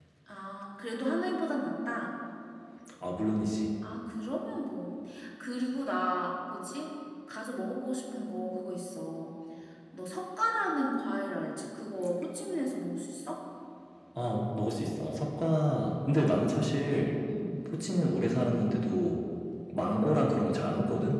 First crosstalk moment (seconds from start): none

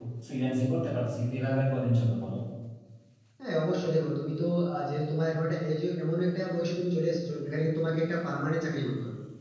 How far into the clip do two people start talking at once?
none

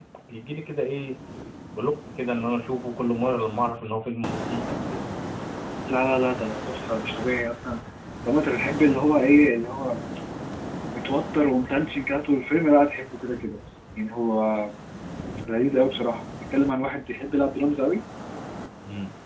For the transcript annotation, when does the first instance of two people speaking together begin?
none

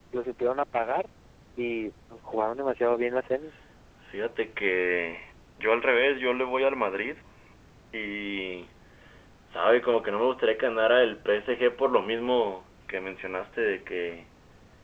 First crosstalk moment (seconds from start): none

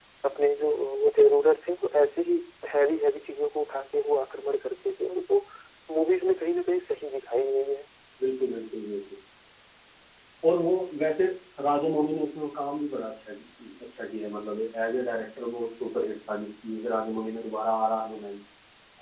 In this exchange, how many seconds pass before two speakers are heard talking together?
none

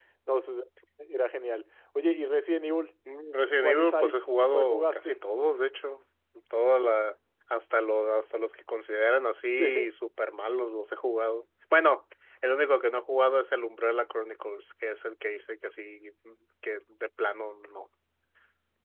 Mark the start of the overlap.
4 s

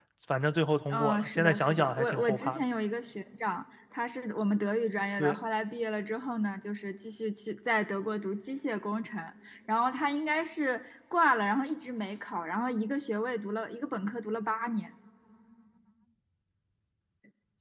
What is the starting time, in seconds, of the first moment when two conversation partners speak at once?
1 s

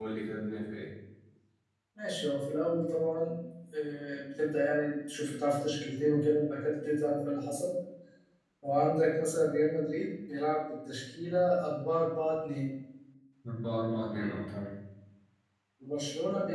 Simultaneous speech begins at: none

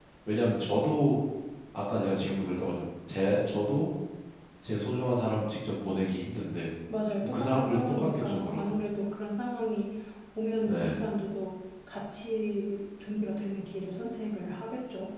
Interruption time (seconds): 7 s

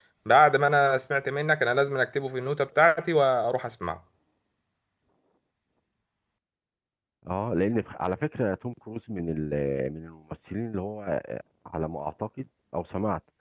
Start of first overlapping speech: none

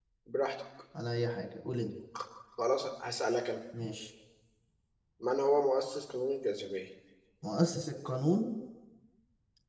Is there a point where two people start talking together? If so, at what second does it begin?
none

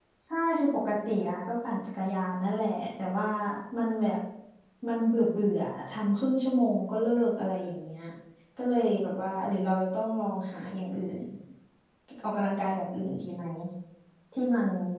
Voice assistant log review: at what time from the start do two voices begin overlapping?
none

